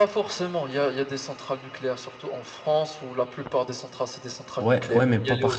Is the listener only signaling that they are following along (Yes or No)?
No